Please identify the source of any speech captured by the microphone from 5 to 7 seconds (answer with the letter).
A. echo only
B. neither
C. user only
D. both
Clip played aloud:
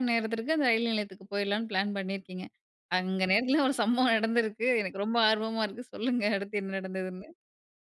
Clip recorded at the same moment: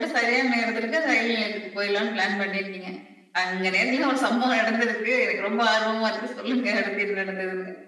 A